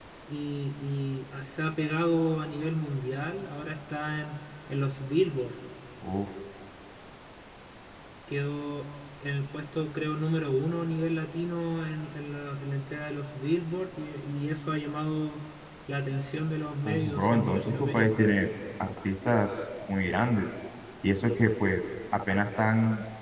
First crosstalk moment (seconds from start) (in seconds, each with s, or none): 16.8 s